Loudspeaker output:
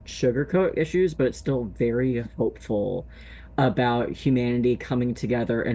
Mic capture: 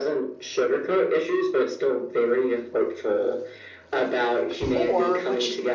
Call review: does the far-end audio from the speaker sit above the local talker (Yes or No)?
No